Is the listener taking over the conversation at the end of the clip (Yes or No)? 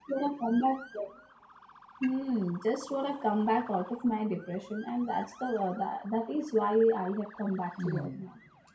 Yes